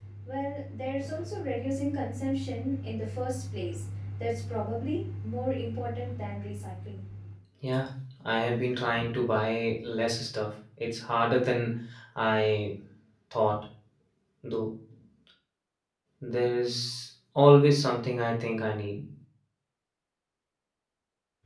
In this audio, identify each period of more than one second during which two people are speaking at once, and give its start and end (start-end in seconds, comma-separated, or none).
none